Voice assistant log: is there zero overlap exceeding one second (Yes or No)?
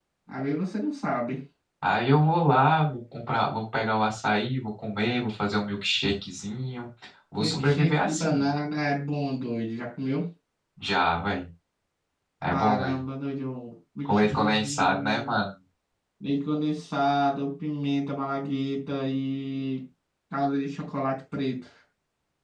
No